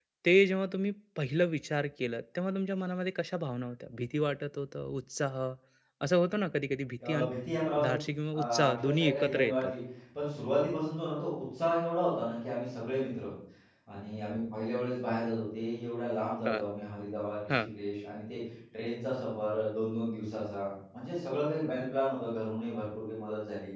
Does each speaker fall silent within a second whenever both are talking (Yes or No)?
No